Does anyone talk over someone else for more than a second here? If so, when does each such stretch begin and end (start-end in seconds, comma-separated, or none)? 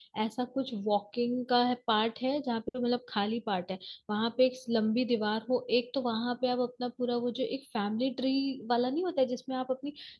none